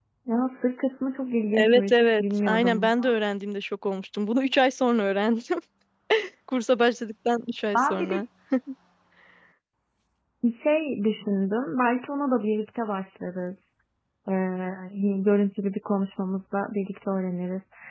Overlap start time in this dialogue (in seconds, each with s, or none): 1.5 s